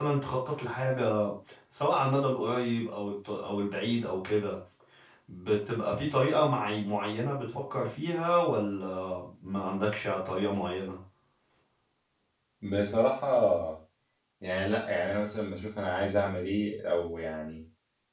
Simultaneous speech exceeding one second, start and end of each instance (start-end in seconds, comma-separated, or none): none